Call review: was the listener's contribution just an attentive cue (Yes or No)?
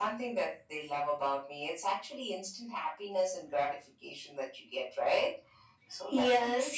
No